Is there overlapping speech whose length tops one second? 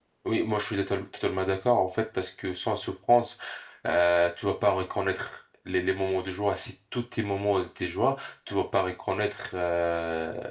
No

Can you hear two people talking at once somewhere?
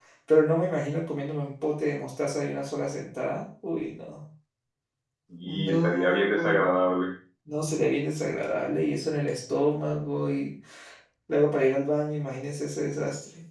Yes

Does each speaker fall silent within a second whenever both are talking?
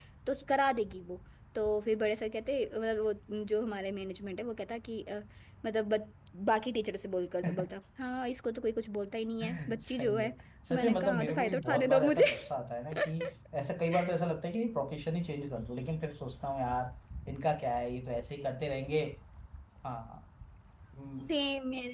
No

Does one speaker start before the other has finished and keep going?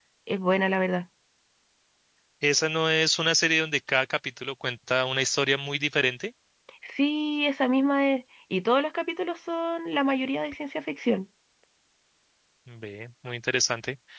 No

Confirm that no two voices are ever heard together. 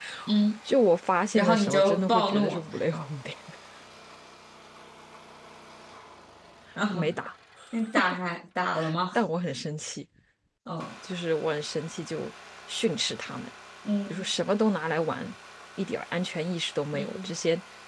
No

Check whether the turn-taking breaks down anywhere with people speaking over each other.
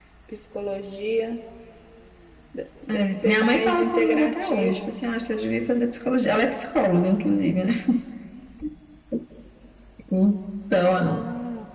Yes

